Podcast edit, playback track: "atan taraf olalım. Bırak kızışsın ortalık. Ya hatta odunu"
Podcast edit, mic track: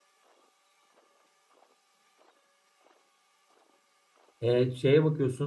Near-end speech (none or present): present